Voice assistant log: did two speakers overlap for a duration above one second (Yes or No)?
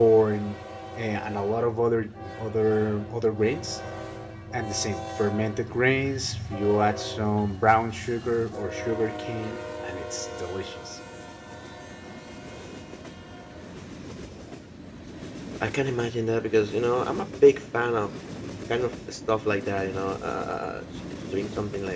No